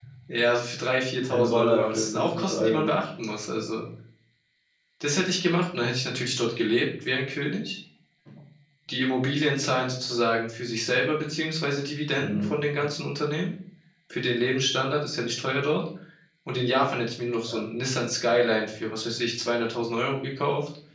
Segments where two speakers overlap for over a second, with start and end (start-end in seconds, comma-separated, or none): 1.3-2.9